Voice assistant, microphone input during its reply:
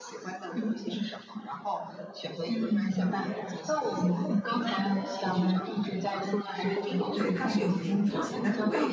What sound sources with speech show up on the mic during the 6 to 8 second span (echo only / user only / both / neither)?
both